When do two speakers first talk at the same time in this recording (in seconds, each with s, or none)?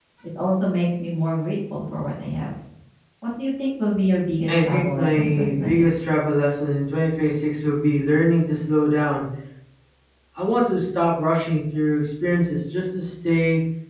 4.5 s